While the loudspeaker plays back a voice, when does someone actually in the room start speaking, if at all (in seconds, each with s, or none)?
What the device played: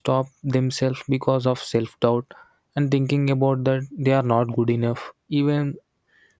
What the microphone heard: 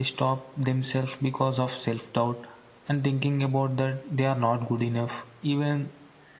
none